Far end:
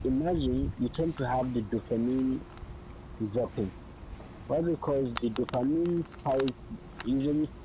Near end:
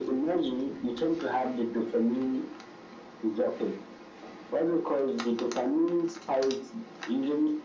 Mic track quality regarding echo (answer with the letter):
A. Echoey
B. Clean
A